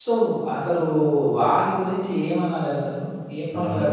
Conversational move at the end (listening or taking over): taking over